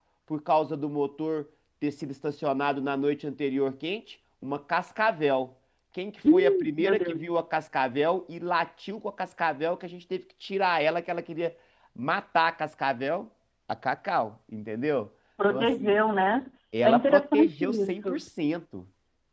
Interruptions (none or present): present